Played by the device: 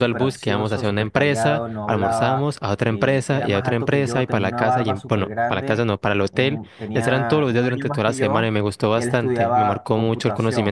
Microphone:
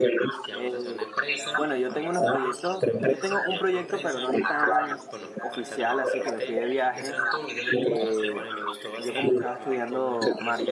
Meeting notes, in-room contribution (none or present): present